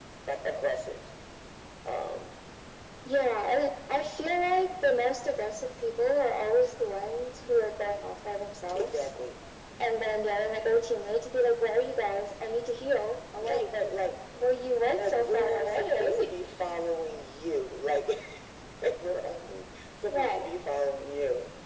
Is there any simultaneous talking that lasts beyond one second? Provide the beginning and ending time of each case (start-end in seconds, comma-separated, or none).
15.0-16.3